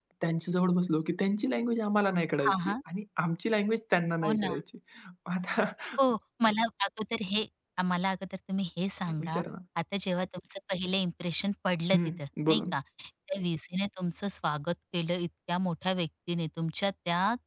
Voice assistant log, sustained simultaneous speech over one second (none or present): none